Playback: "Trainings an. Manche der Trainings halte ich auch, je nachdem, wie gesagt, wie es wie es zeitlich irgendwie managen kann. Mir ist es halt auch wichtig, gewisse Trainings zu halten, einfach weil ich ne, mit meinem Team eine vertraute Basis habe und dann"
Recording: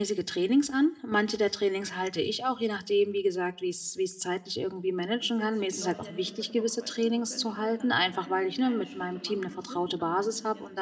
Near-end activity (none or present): present